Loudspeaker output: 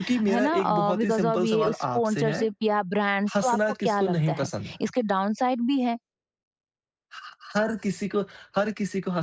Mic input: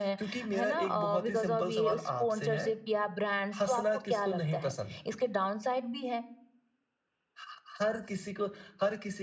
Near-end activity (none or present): none